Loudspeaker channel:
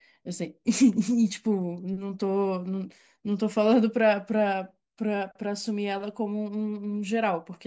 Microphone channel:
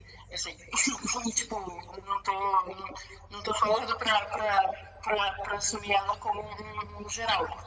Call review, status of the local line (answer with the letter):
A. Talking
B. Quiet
B